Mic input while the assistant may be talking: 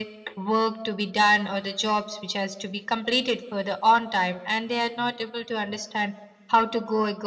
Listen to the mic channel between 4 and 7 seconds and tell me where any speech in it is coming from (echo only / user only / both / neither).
echo only